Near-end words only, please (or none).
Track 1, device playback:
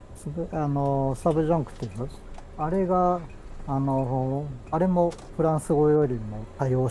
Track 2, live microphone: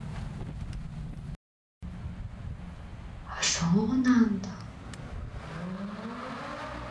あ、そうなんだ。